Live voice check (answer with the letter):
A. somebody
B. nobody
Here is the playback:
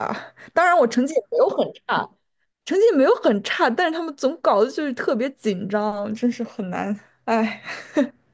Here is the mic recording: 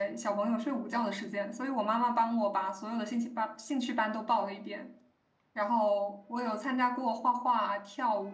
A